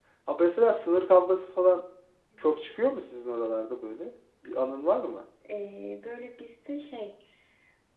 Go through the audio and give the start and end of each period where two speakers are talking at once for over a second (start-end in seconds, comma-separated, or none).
none